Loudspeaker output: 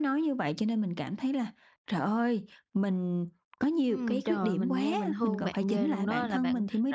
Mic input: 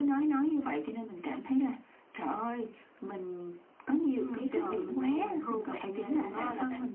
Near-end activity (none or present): none